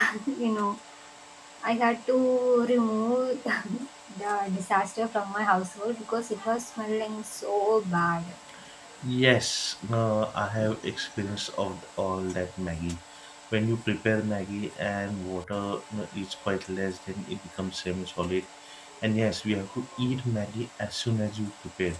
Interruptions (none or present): none